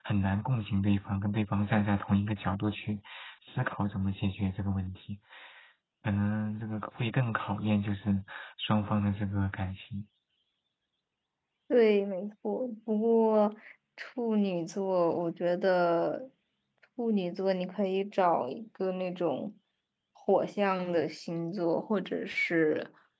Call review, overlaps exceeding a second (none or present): none